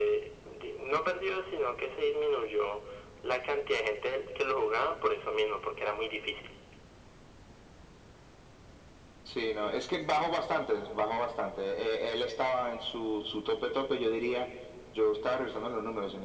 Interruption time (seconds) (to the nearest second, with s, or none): none